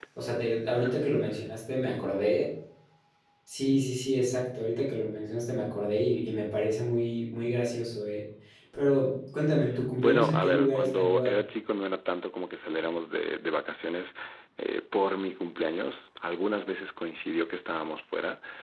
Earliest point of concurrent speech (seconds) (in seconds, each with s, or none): 10.0 s